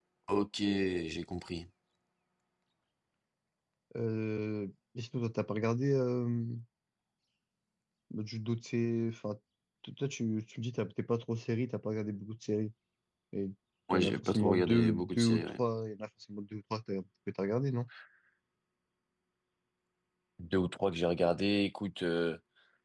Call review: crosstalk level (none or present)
present